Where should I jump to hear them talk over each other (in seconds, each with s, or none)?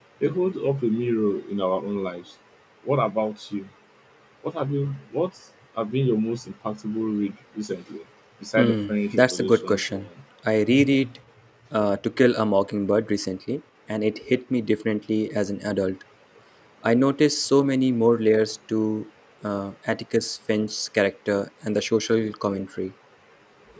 8.6 s